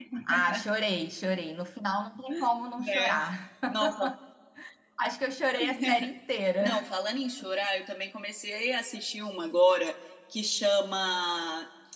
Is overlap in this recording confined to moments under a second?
Yes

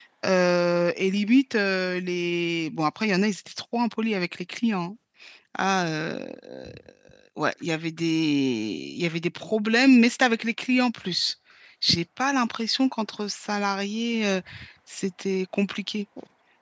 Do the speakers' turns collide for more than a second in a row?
No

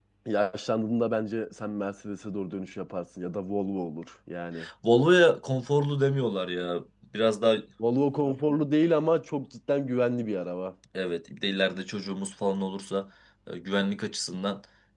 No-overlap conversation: Yes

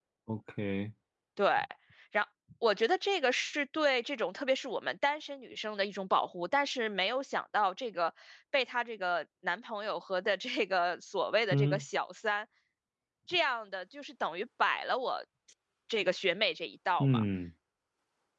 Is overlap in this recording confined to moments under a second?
Yes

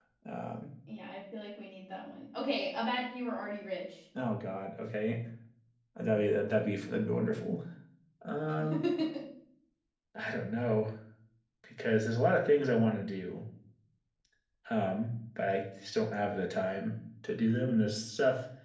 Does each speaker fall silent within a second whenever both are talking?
Yes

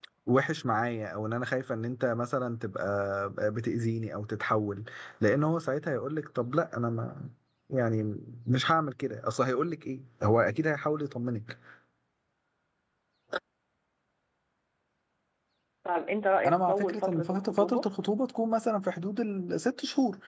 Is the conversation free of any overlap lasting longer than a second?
No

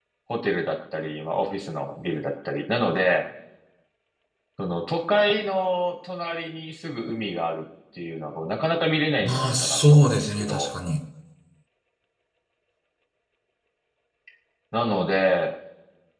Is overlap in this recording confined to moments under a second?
No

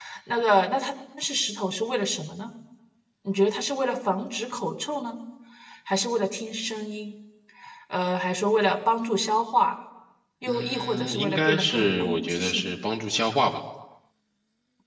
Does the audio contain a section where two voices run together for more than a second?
Yes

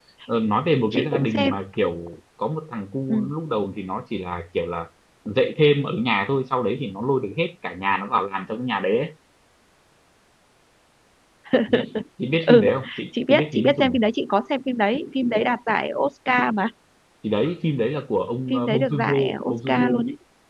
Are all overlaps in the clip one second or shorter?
No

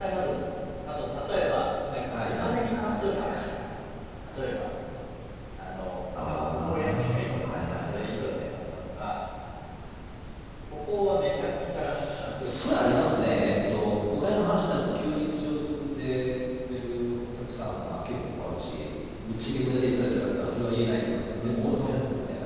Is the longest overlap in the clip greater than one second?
Yes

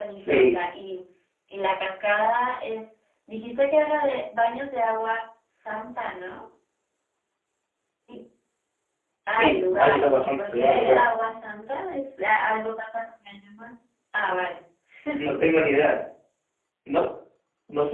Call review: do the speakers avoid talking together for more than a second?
No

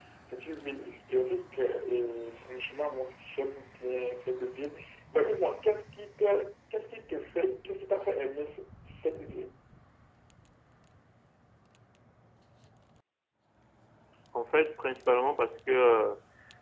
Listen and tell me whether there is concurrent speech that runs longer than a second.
No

